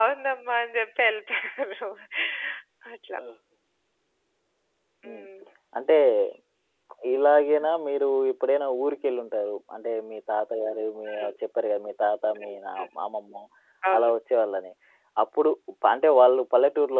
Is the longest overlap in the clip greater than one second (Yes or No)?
No